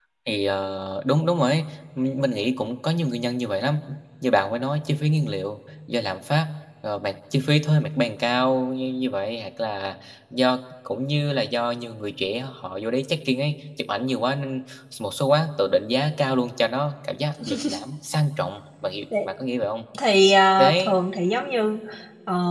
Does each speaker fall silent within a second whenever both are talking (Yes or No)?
Yes